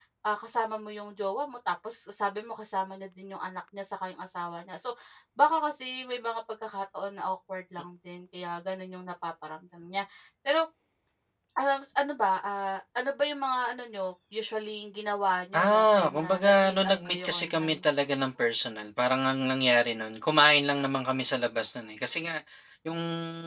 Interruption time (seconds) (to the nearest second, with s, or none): 16 s